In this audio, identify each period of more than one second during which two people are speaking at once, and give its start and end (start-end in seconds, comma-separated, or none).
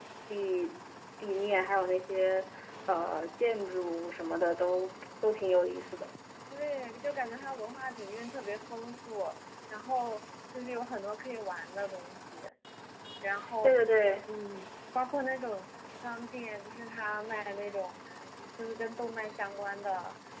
none